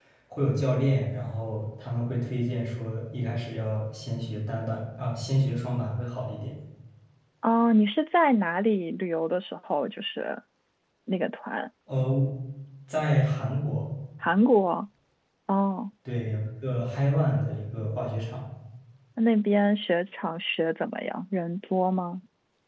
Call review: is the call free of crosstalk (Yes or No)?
Yes